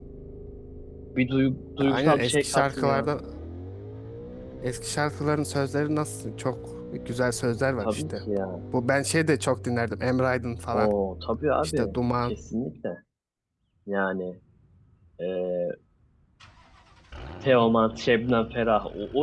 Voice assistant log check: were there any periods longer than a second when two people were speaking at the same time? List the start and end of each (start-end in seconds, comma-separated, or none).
1.8-3.1